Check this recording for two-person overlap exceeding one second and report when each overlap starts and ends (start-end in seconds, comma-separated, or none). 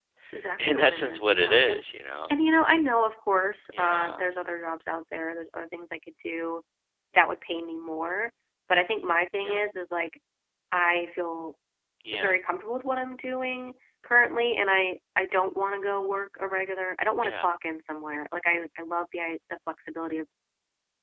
0.6-1.8